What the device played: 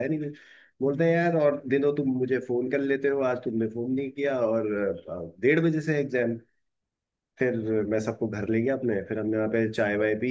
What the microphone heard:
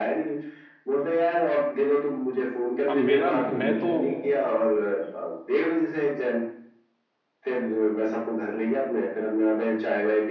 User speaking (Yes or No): Yes